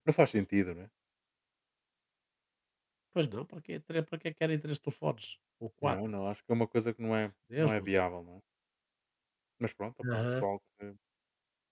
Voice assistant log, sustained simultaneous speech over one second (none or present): none